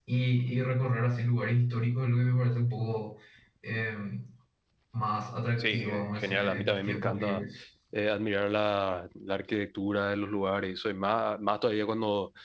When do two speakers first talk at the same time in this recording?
6 s

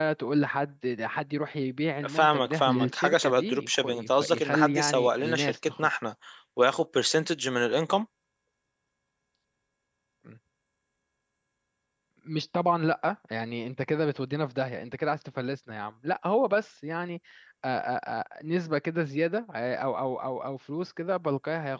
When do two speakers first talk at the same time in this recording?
2 s

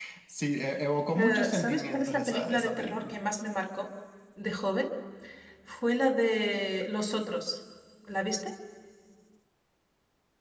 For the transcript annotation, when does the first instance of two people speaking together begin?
1 s

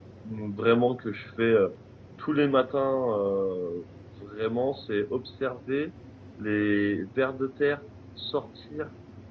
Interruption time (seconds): none

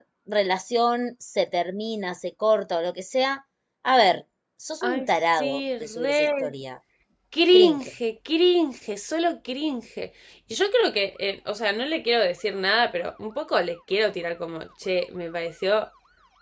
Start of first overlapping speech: 5 s

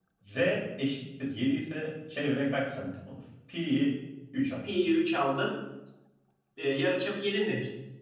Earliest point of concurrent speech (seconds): none

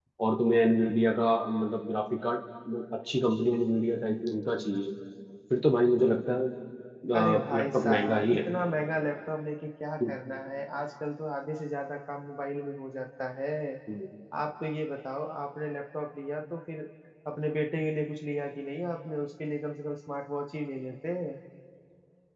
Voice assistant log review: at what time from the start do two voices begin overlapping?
7 s

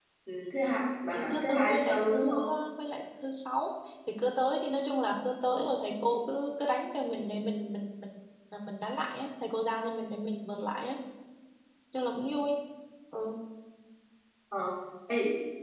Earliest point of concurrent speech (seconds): 1 s

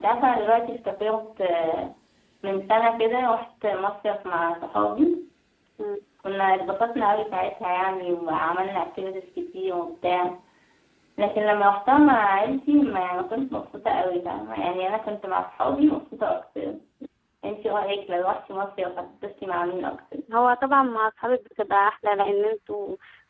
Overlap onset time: none

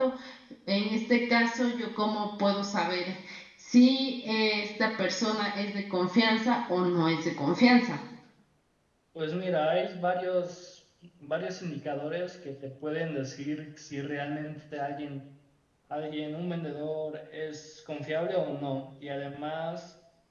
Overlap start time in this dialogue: none

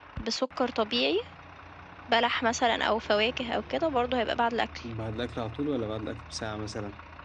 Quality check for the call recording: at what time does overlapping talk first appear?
none

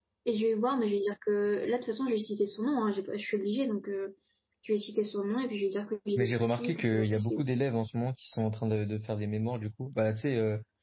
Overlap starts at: 6 s

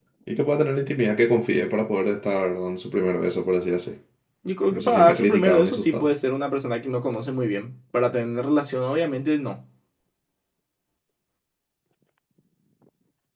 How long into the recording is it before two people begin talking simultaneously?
5 s

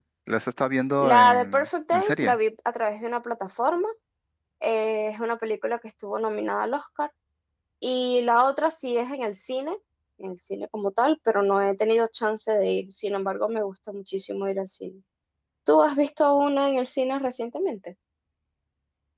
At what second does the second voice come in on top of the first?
1 s

